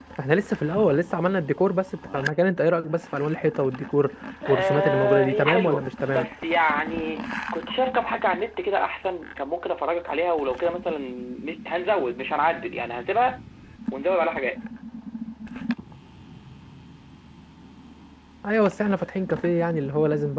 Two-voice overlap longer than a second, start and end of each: 4.5-6.3

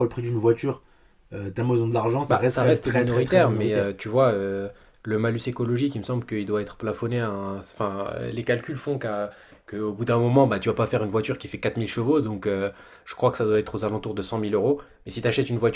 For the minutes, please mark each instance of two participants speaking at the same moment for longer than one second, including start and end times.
2.3-3.9

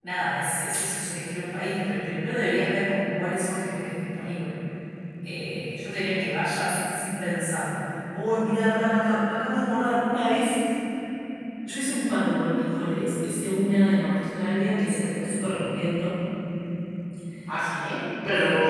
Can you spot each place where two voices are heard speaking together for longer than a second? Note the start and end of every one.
none

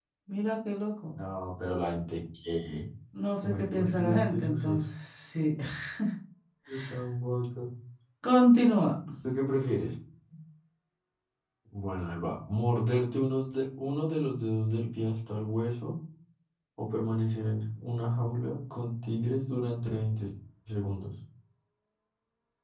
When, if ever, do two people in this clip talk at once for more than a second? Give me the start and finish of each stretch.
3.4-4.8

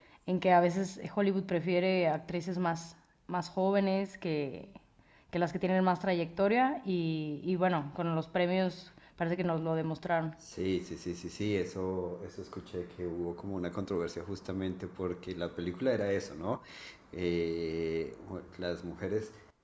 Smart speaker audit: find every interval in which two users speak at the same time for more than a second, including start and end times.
none

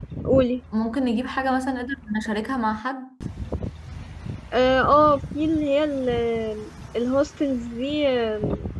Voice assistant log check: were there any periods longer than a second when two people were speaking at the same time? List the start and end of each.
none

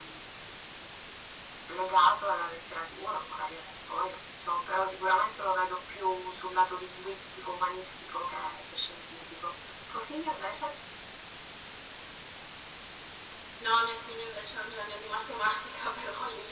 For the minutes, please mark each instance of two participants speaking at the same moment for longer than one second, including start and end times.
none

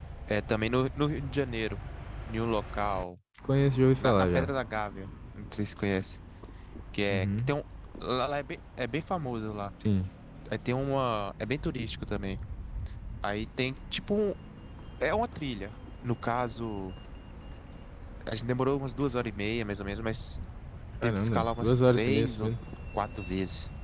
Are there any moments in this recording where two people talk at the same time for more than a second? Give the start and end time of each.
21.0-22.5

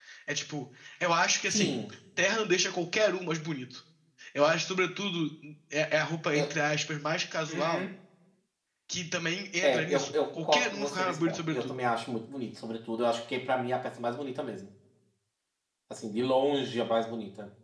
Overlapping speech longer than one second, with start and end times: 9.6-11.8

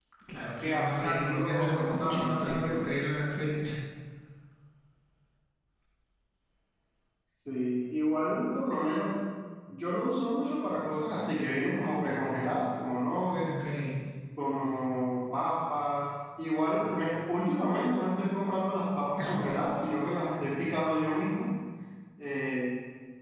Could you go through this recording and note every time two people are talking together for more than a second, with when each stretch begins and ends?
0.6-2.8

